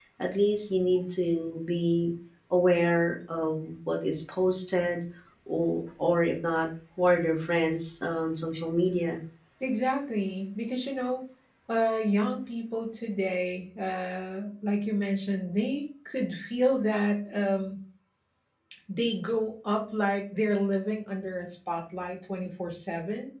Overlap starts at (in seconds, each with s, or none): none